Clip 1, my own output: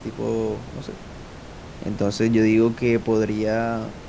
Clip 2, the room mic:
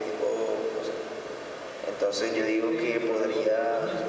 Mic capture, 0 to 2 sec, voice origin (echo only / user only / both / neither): echo only